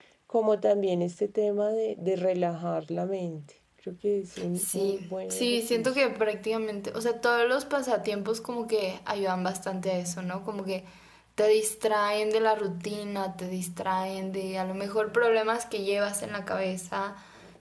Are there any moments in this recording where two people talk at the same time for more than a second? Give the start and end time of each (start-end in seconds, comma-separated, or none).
4.6-5.9